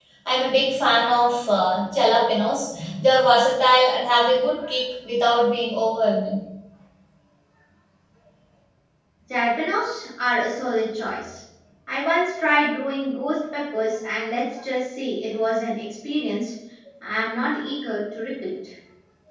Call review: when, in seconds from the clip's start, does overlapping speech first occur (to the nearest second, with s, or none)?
none